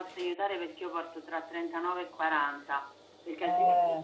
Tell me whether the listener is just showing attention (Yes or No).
Yes